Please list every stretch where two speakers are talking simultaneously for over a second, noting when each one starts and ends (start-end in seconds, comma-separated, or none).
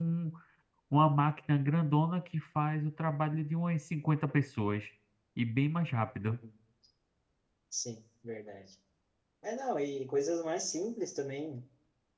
none